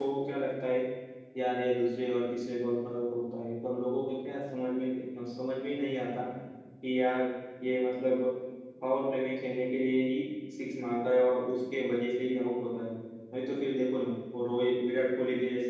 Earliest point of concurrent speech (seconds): none

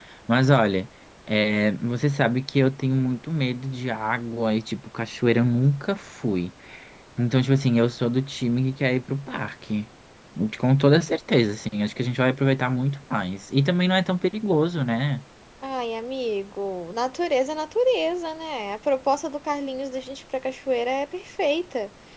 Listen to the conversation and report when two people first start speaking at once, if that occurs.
none

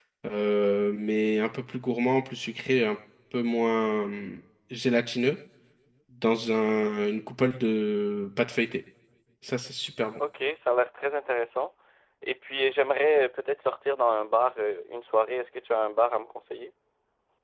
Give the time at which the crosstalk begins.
none

